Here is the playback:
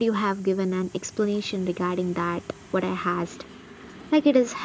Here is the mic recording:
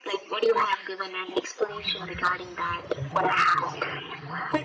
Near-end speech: present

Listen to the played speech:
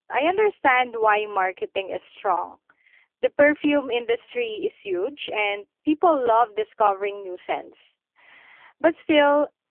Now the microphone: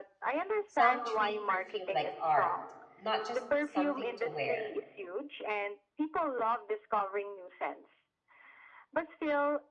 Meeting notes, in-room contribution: present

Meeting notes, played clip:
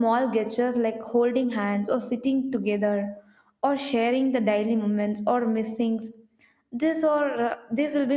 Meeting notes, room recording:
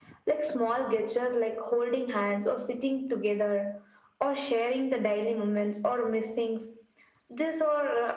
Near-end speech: none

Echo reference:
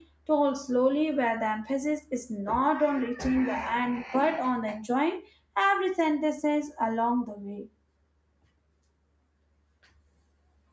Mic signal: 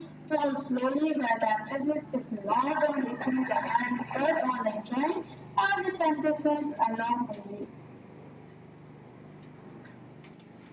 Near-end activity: none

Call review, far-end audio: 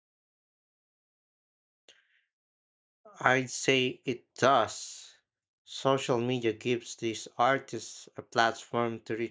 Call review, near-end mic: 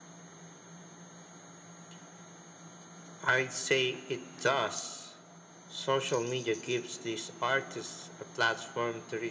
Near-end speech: none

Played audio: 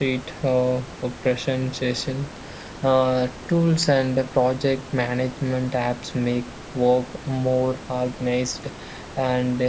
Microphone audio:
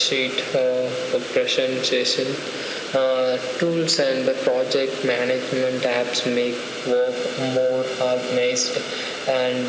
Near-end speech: none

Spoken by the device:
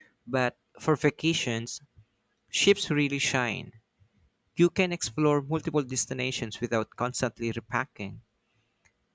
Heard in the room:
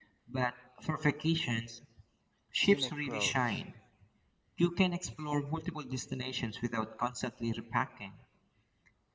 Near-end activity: present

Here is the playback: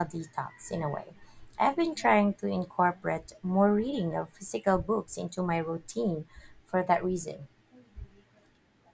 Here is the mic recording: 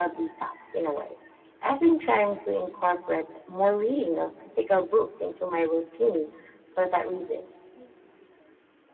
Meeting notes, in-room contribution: none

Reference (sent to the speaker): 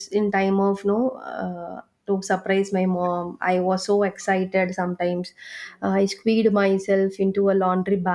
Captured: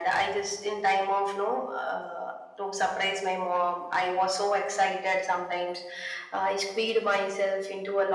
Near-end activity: none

